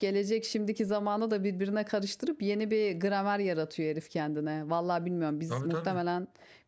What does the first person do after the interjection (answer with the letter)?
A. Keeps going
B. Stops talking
A